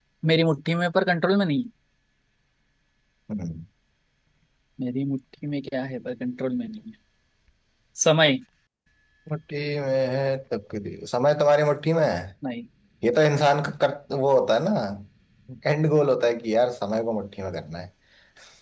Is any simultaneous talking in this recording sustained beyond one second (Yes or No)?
No